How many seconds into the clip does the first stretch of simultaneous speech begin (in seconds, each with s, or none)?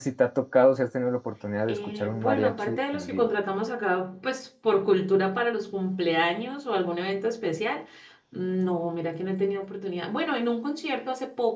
1.7 s